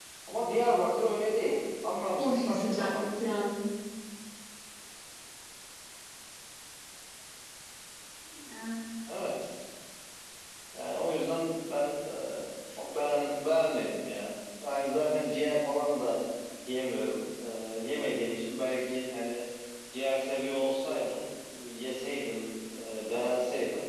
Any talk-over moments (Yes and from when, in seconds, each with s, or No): Yes, from 2.2 s